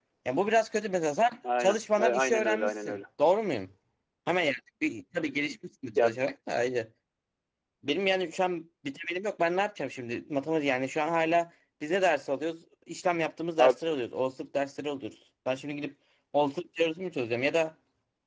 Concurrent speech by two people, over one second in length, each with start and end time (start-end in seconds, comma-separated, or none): 1.6-3.0